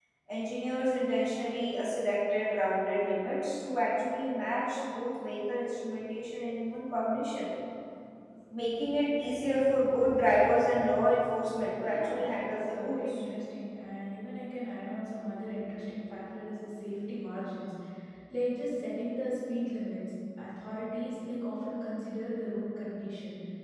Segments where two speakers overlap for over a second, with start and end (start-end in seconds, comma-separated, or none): 11.8-13.2